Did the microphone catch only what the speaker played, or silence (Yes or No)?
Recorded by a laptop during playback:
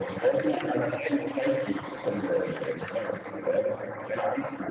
No